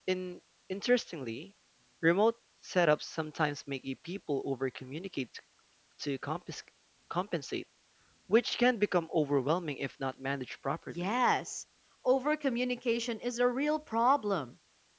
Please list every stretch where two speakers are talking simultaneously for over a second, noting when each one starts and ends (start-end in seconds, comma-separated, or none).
none